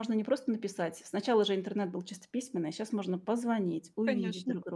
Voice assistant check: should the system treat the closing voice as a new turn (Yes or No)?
Yes